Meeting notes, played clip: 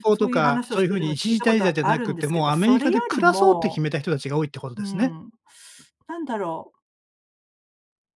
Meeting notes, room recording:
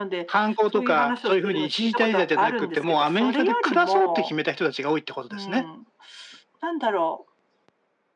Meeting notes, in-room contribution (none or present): none